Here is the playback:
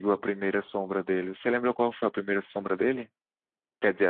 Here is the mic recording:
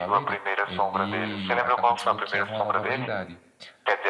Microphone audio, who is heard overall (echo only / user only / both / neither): both